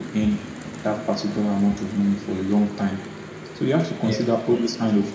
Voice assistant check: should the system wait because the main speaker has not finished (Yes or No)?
Yes